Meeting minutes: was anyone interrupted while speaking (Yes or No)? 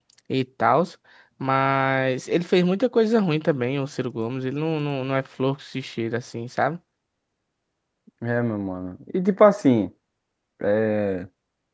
No